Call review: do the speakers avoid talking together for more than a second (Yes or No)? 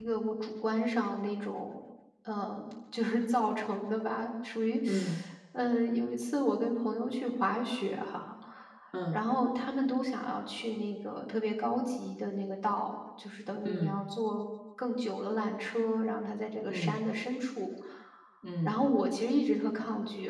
Yes